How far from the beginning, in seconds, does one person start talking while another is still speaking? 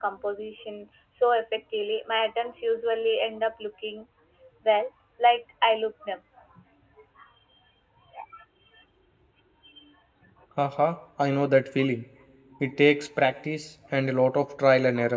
none

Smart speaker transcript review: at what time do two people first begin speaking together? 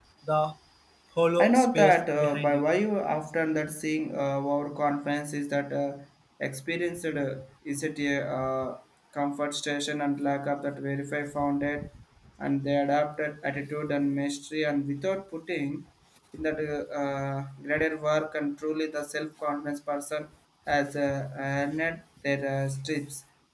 1.4 s

